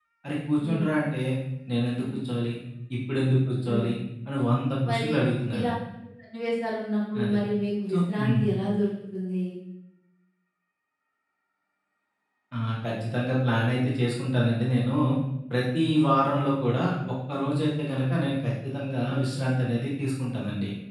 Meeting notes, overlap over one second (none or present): none